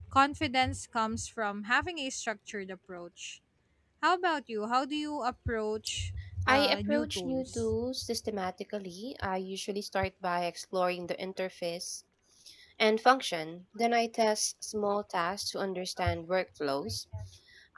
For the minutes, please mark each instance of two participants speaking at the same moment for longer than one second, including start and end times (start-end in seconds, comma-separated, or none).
6.5-7.7